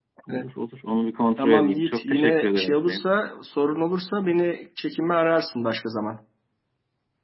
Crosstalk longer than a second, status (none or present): present